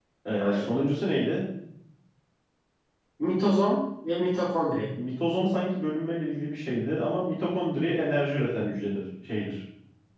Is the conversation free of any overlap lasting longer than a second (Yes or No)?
Yes